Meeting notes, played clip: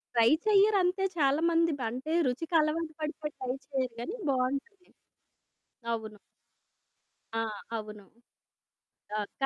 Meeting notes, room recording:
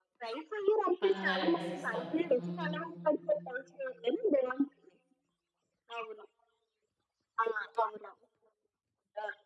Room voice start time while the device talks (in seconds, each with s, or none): 1.0 s